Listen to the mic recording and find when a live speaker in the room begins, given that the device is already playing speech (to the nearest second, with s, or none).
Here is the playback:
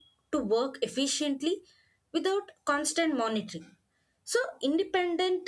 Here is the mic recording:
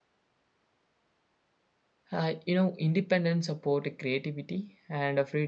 2 s